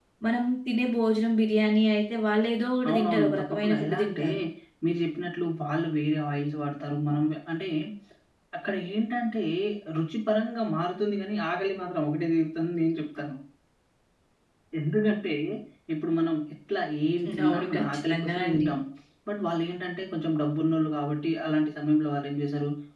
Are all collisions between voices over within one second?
No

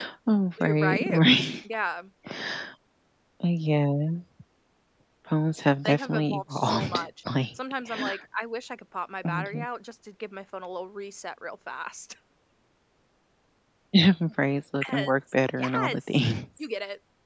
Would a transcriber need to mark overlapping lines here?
Yes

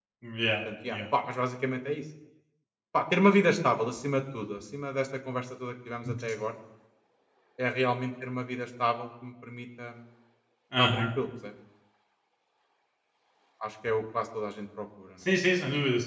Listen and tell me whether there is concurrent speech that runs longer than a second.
No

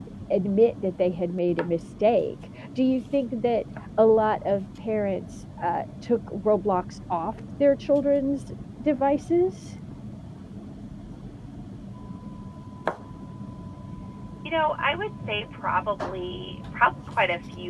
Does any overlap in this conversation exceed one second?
No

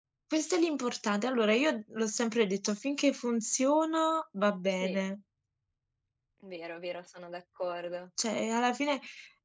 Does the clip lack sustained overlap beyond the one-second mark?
Yes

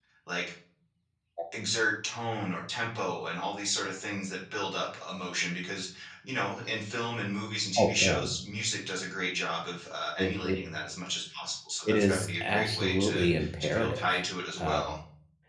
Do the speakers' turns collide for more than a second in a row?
Yes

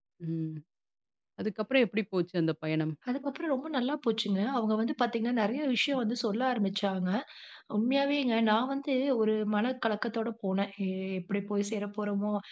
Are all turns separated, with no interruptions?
Yes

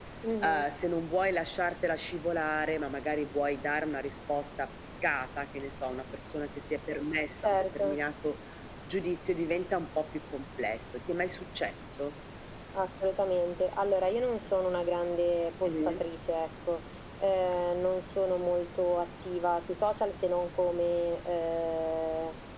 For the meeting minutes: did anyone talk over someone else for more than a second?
No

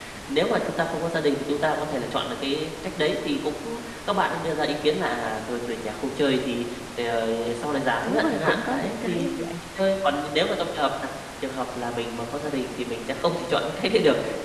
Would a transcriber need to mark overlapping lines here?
Yes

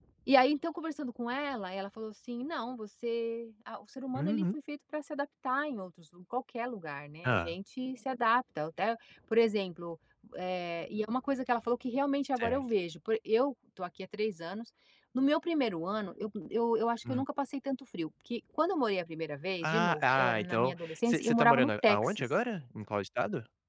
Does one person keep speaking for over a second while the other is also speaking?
Yes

